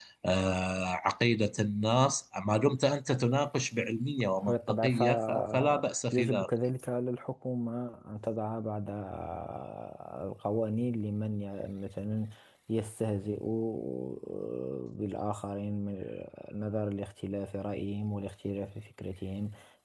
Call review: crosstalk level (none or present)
present